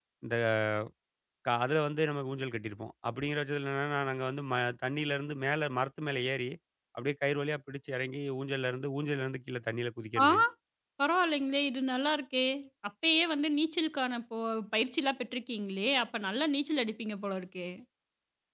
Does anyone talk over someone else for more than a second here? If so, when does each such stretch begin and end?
none

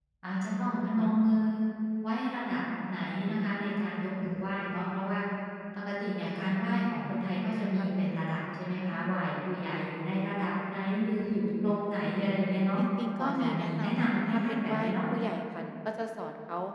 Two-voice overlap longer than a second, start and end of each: 13.2-15.0

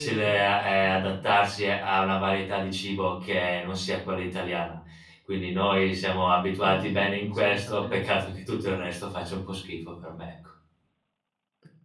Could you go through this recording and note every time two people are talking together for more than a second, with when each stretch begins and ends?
6.6-8.2

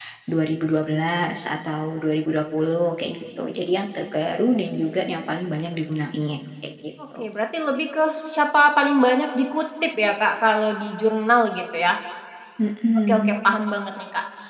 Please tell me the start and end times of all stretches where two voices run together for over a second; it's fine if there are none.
none

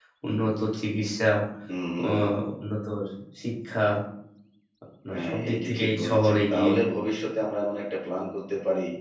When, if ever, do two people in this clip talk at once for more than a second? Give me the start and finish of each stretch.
5.1-6.7

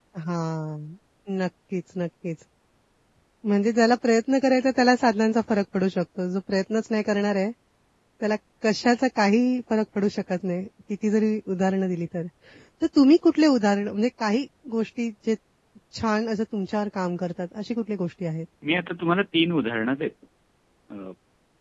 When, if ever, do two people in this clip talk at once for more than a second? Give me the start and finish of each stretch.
none

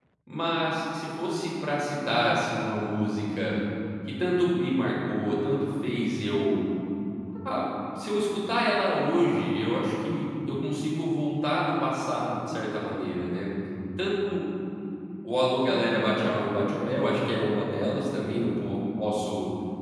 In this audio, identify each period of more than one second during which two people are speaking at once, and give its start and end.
15.7-16.9

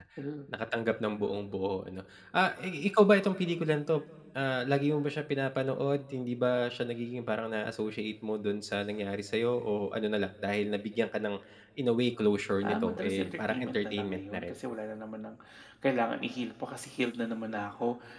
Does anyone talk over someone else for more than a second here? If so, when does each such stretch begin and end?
12.7-14.5

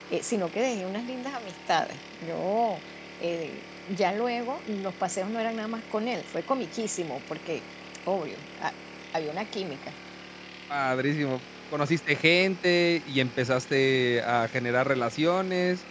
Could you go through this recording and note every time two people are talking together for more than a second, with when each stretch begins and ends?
none

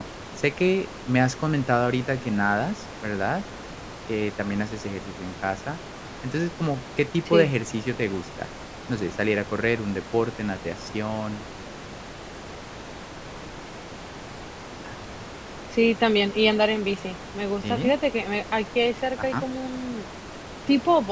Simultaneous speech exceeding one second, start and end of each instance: none

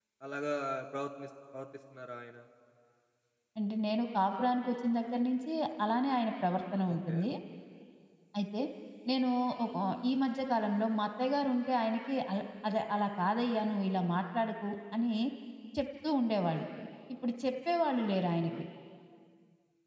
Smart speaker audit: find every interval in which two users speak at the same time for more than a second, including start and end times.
none

